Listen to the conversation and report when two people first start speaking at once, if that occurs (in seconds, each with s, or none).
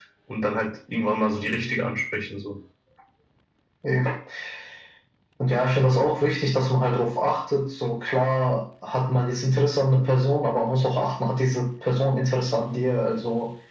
none